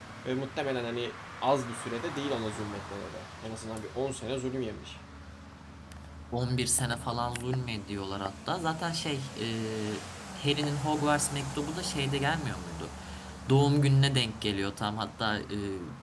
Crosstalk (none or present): none